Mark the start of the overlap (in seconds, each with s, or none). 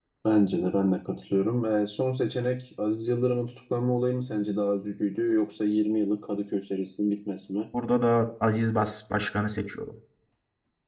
none